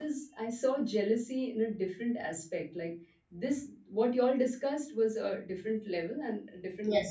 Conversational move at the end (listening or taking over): listening